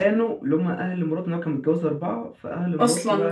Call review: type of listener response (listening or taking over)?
listening